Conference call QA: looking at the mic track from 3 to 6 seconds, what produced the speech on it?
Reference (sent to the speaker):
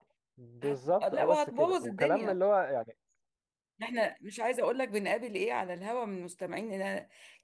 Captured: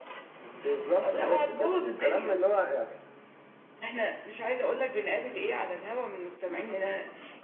echo only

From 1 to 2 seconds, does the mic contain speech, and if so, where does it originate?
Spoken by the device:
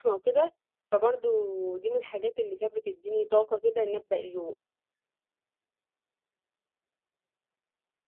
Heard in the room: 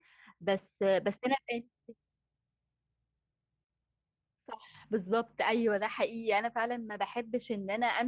user only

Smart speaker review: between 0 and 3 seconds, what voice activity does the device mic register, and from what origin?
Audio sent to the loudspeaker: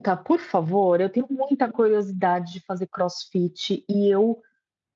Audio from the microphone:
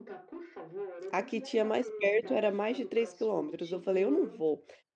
both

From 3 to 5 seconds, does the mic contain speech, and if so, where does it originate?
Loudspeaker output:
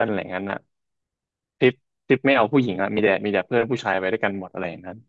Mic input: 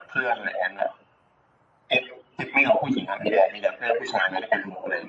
echo only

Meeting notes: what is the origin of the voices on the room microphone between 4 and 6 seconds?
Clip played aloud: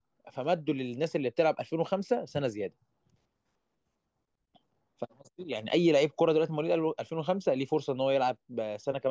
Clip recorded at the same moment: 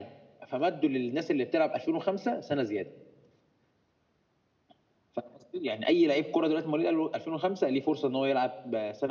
echo only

